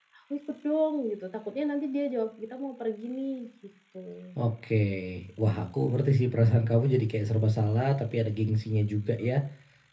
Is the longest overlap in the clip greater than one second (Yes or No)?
No